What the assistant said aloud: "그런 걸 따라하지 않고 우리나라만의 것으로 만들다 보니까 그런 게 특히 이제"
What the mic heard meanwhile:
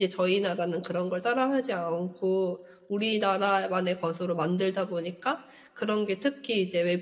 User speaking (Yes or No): No